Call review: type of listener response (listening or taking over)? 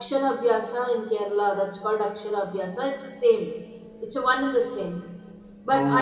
listening